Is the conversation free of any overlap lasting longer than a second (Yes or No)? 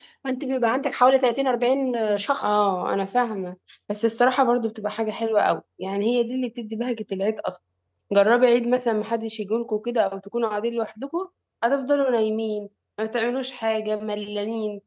Yes